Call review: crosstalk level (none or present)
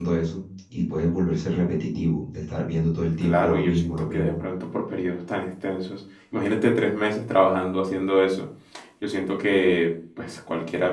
present